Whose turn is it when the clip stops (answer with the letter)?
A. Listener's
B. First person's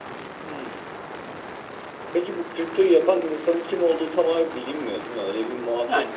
A